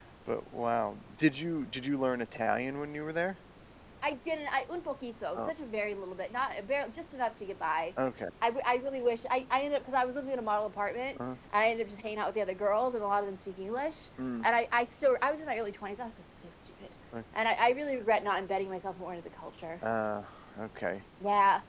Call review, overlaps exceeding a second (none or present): none